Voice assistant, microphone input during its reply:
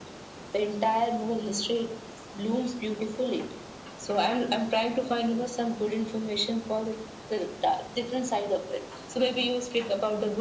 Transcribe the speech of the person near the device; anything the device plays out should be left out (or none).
none